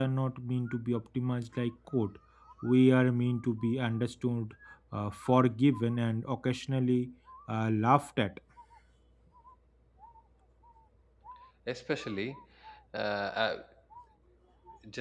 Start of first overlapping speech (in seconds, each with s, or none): none